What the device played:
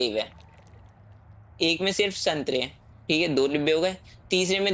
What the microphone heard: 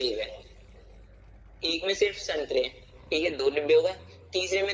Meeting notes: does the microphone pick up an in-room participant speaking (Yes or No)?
No